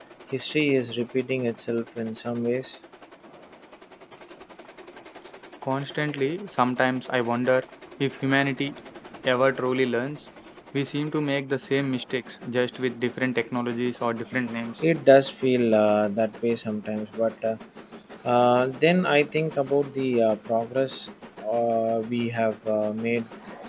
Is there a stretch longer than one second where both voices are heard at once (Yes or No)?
No